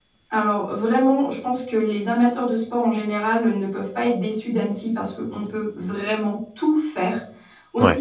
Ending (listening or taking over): listening